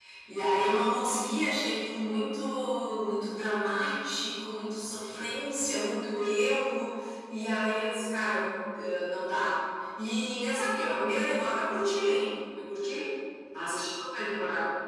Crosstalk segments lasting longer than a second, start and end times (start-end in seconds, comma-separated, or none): none